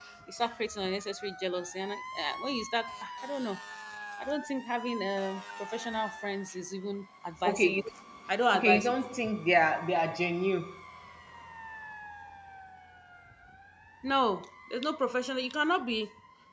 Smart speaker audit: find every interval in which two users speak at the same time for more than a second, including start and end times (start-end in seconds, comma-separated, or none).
none